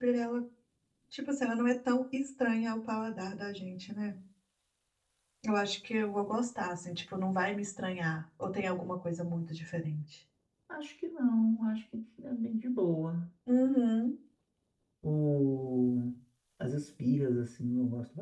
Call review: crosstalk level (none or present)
none